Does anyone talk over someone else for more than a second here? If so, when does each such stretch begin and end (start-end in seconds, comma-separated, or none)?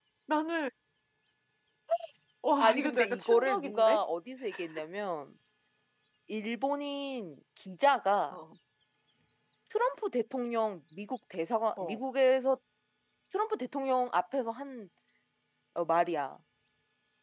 2.6-4.0